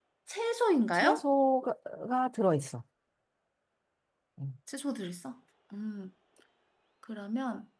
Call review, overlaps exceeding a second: none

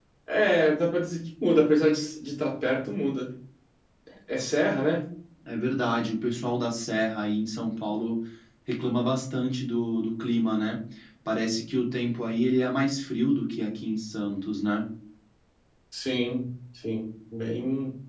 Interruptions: none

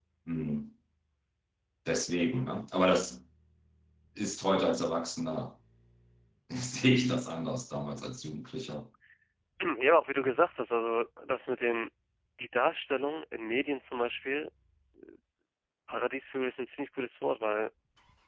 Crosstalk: none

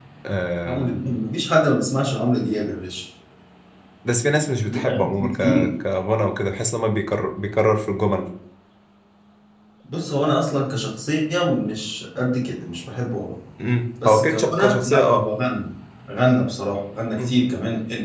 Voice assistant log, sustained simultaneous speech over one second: present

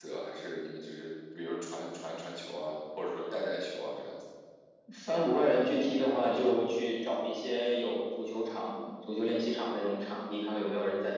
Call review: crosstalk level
none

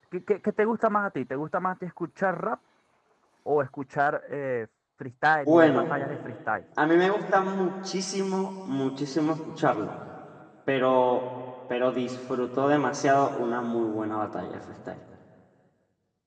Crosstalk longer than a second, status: none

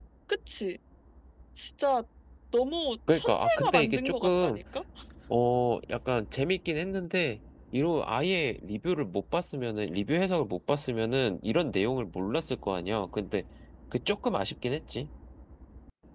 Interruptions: present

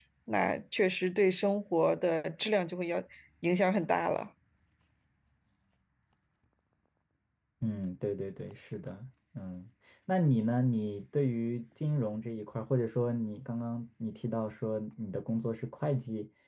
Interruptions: none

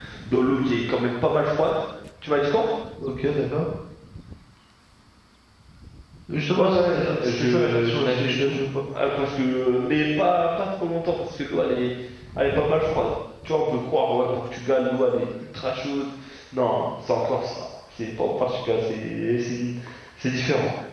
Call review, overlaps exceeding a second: present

